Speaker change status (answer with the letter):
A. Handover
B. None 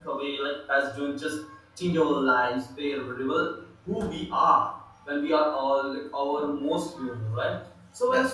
B